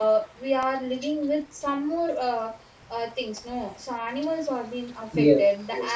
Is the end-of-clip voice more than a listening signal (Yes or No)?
No